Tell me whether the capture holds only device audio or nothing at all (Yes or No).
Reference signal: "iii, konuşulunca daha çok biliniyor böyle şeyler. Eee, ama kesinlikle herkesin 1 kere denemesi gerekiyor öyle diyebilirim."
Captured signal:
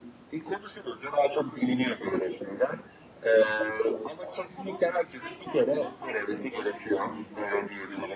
No